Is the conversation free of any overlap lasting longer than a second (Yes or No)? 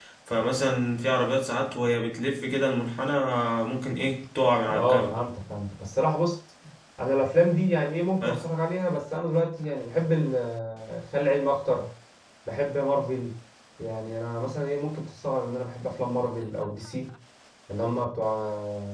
Yes